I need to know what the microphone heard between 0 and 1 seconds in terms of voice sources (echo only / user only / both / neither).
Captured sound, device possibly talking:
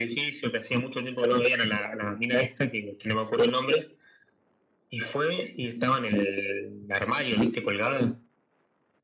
echo only